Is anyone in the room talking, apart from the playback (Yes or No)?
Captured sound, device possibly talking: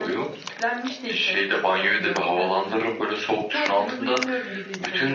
No